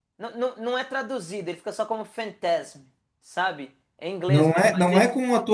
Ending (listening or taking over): taking over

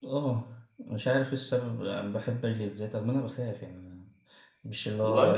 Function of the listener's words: listening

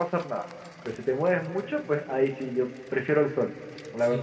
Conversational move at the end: taking over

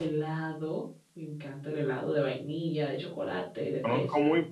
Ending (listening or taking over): taking over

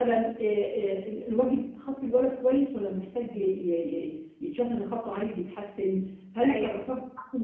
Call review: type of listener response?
listening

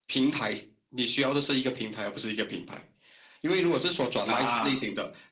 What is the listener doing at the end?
listening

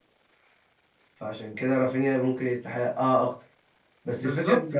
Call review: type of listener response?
listening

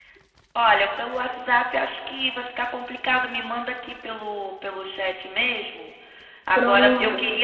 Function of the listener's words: listening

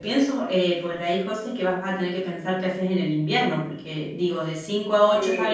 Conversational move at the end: listening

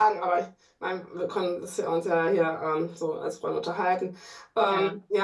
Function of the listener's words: listening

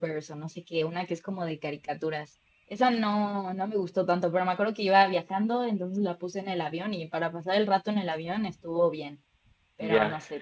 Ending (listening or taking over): taking over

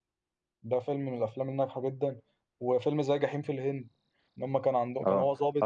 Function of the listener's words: taking over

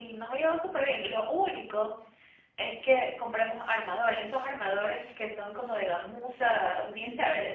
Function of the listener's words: taking over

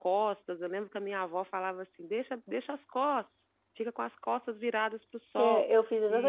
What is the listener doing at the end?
taking over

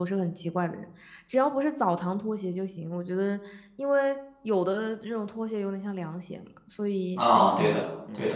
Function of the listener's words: taking over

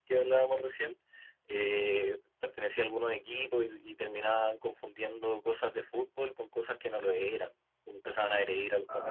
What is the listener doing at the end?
listening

